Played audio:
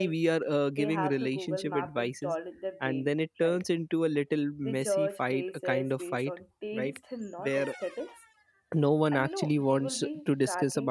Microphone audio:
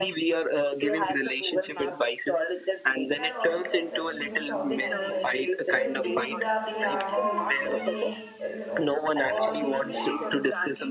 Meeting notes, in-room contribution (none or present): present